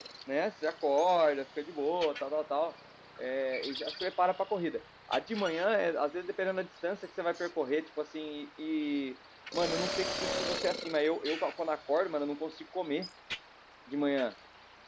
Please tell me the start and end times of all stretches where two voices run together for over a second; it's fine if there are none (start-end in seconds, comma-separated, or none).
none